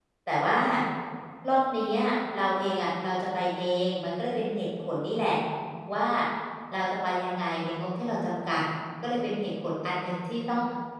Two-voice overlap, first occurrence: none

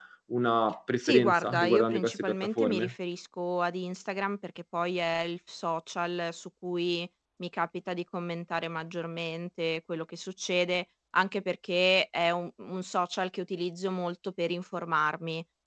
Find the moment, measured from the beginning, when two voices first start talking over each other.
1.0 s

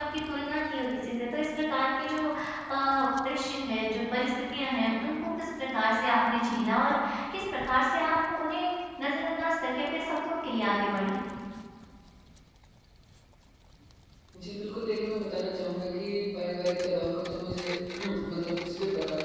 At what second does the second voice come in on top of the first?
none

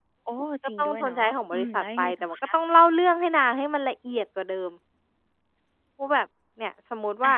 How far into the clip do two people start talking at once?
0.8 s

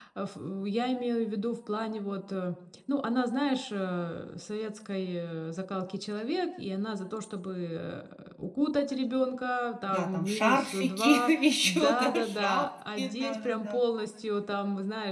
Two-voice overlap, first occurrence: 9.9 s

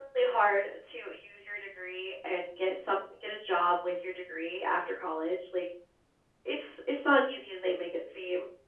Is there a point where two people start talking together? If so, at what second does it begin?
none

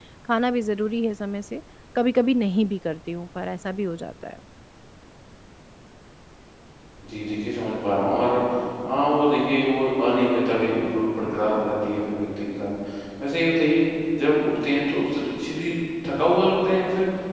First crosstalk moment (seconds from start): none

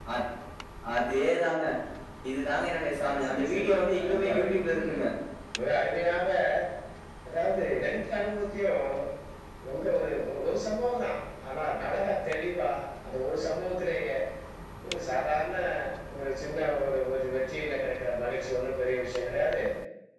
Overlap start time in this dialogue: 3.0 s

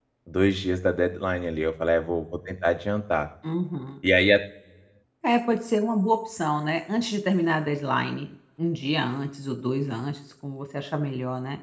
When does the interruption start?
none

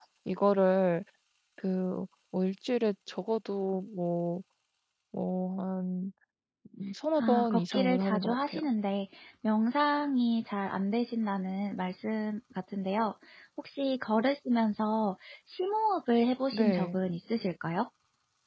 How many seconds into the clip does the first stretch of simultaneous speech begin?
7.2 s

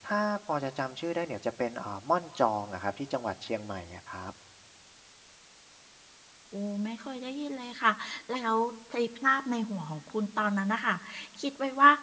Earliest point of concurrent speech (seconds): none

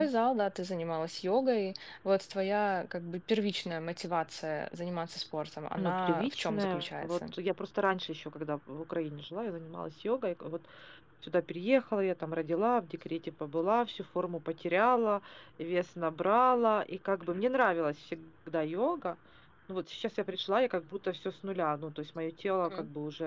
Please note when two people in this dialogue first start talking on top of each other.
5.8 s

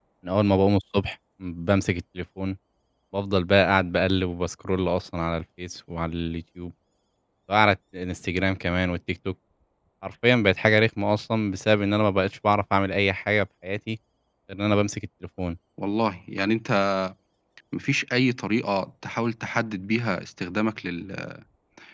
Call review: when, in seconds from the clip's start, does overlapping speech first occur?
none

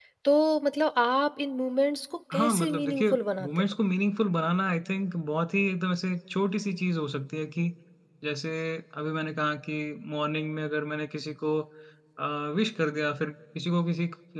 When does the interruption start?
2.3 s

